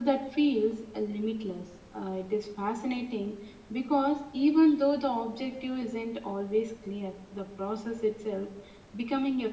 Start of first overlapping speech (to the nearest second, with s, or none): none